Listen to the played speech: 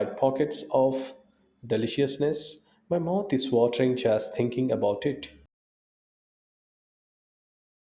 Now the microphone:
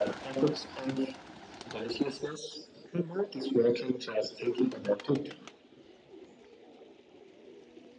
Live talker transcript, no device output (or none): none